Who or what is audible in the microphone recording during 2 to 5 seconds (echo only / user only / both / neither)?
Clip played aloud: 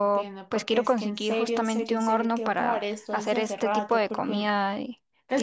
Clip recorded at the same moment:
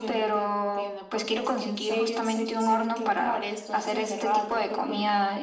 echo only